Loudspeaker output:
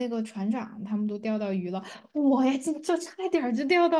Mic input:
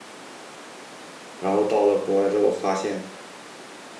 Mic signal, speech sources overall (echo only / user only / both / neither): user only